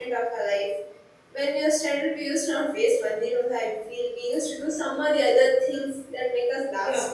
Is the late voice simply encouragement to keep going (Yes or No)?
No